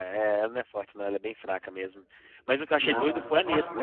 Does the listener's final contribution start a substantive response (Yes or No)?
No